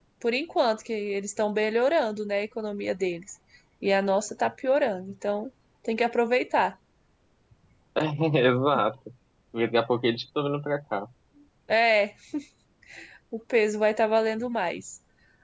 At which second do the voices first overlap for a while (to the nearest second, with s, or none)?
none